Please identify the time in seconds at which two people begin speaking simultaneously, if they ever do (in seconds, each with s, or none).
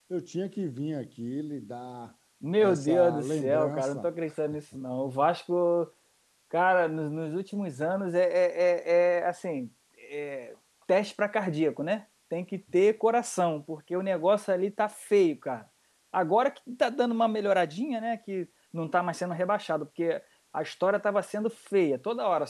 2.6 s